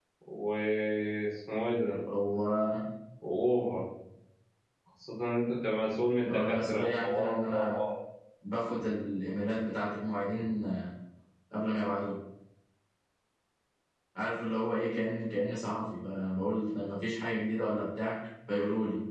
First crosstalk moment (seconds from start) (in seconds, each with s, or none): 6.2 s